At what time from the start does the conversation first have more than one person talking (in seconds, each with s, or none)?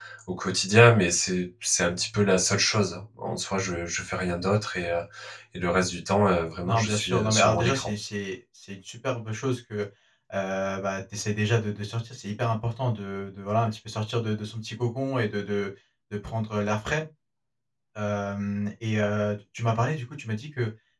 6.6 s